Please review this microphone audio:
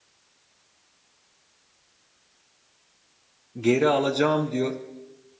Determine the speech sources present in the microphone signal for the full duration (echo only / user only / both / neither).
user only